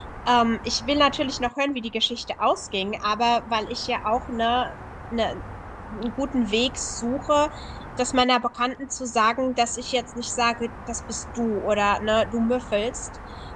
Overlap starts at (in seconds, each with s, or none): none